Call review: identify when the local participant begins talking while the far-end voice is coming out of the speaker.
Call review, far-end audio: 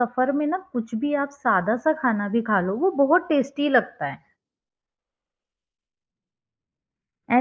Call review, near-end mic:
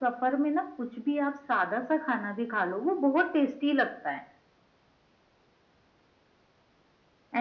none

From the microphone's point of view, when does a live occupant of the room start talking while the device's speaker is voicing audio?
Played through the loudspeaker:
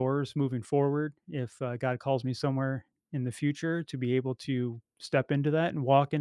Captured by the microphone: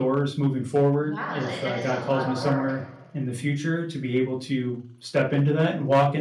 1 s

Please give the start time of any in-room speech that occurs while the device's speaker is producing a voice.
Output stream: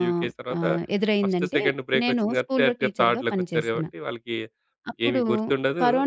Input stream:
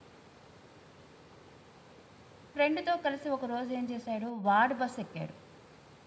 3 s

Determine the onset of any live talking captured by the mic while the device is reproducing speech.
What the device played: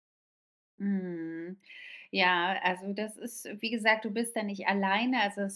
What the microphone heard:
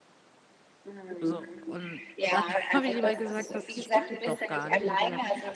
1 s

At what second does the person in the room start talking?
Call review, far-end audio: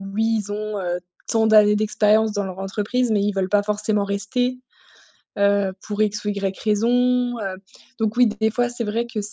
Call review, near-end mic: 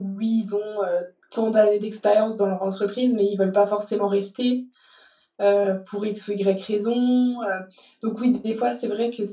none

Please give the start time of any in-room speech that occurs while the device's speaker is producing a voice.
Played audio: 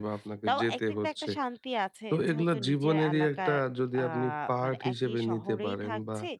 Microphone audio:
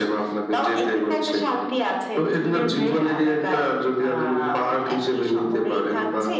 3 s

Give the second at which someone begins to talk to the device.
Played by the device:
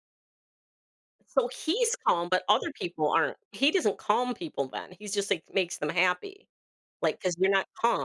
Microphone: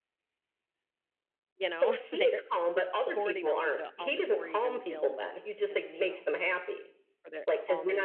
2 s

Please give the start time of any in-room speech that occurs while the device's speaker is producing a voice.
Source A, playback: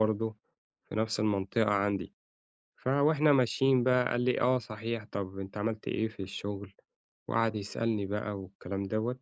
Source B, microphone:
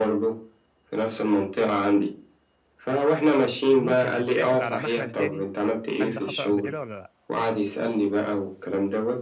4 s

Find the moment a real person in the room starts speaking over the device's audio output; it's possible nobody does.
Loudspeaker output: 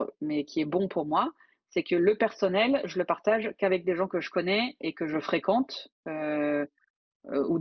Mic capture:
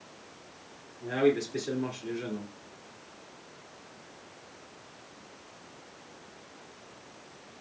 1 s

